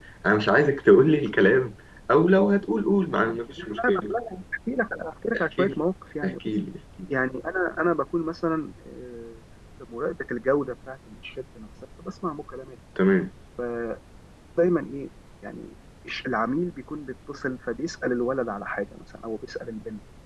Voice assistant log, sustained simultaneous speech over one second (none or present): none